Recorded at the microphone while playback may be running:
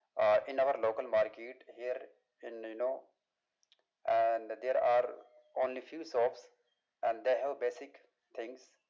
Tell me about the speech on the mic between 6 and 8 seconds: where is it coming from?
echo only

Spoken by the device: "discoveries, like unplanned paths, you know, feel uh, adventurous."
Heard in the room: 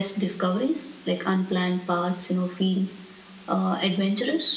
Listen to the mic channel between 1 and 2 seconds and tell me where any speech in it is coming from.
echo only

